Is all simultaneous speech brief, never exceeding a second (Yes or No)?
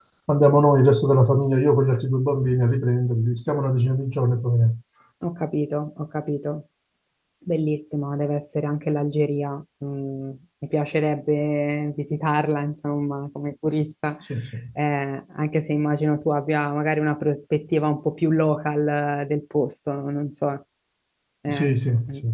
Yes